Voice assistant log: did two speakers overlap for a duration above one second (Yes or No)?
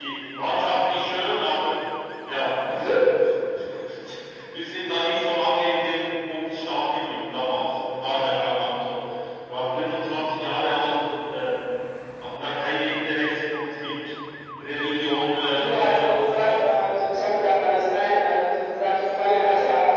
Yes